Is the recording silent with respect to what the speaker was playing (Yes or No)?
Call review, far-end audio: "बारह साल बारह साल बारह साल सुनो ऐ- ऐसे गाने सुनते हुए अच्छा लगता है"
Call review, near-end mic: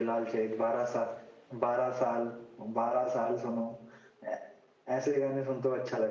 No